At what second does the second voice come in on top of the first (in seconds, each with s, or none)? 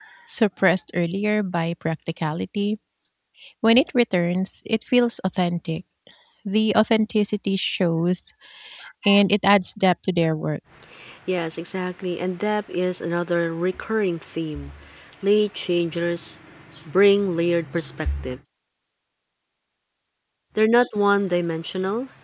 none